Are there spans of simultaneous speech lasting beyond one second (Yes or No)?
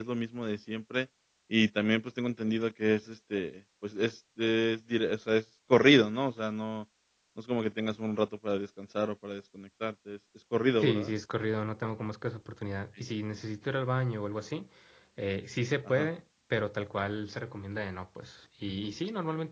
No